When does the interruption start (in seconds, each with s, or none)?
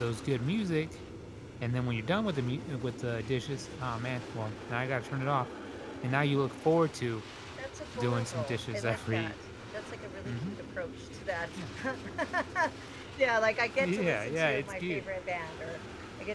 8.0 s